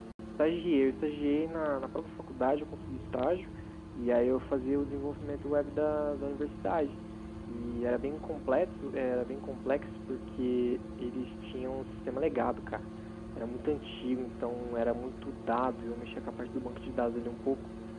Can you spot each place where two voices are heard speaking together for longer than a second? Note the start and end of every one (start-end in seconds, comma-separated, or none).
none